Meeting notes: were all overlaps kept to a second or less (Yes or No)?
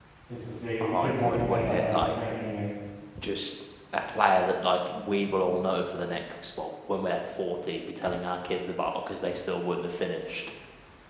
No